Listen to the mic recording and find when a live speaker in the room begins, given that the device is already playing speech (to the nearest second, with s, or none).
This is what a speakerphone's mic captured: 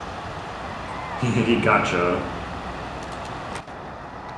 1 s